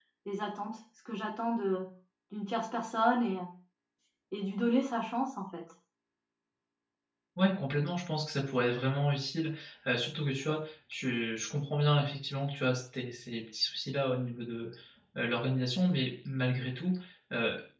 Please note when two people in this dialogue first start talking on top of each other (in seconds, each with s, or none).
none